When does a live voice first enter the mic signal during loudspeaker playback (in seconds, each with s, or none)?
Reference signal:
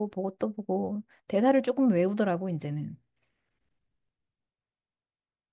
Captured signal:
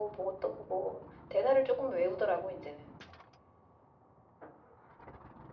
none